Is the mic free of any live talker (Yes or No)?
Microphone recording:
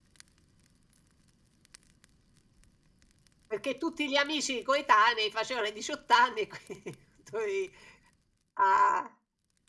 Yes